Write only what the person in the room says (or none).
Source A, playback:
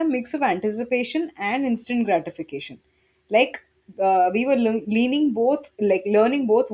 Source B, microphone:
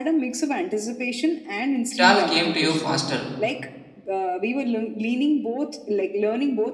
it all came to you faster.